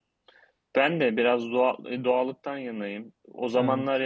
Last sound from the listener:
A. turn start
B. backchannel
B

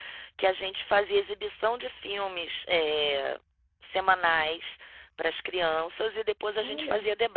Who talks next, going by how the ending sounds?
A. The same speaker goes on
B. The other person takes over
A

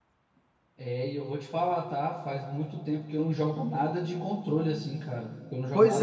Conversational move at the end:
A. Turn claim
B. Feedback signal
A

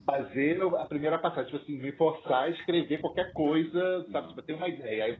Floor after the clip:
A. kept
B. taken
A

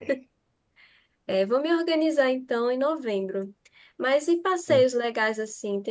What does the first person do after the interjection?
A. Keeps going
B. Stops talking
A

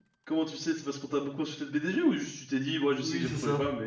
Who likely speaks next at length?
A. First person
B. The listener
B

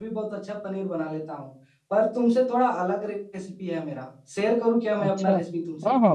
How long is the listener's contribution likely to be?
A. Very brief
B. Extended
B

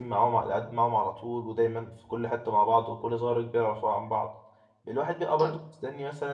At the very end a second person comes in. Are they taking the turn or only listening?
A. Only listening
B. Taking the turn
A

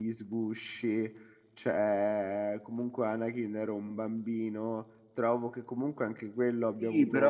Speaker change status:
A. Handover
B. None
A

